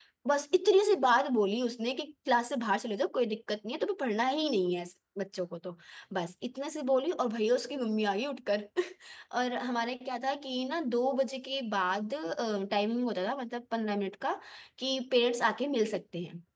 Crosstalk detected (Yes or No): No